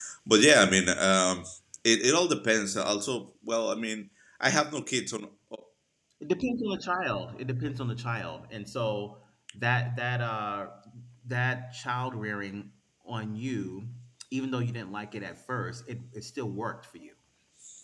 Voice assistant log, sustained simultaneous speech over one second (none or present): none